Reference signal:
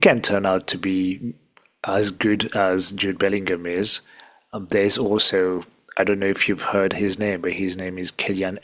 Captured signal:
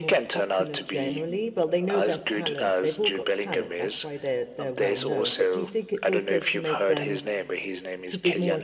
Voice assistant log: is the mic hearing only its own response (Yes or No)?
No